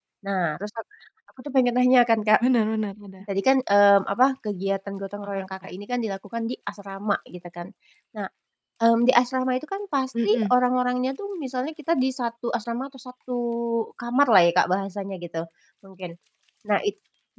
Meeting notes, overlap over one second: none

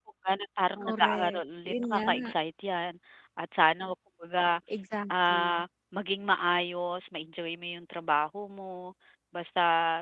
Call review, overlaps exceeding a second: present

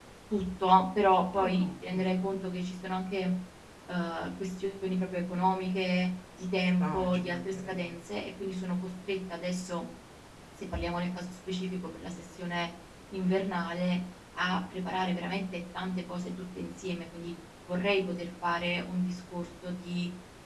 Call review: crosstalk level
present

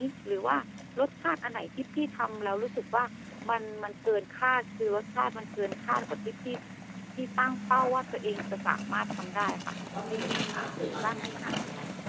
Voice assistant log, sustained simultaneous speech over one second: present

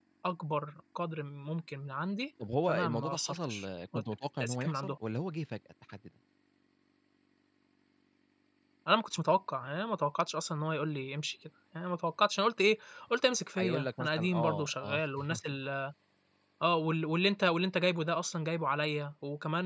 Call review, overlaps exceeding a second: present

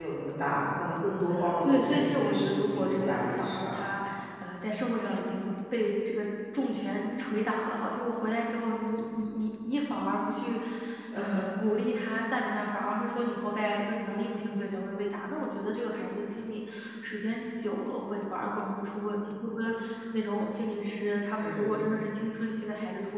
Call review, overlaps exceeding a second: present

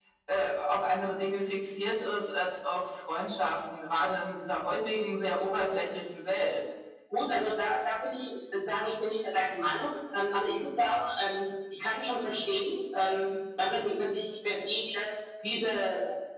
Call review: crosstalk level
none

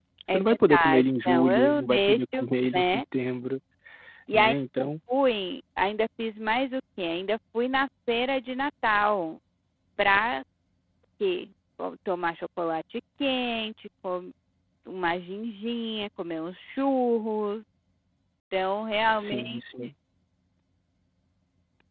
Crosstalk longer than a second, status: present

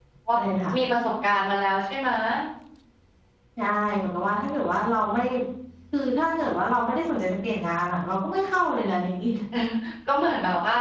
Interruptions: none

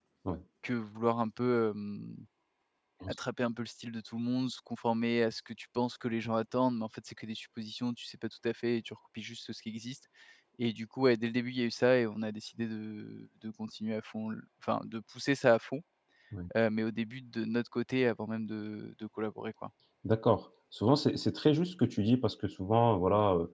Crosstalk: none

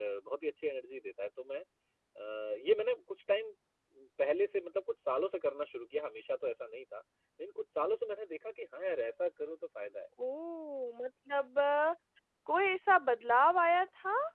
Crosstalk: none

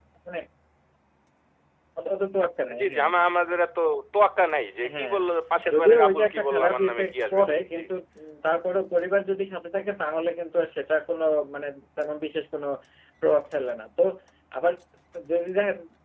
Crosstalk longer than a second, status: present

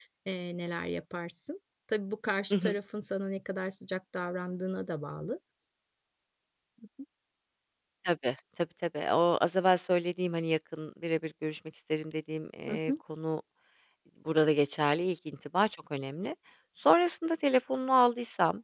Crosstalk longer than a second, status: none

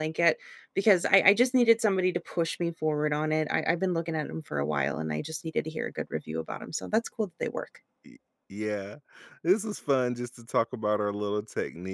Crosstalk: none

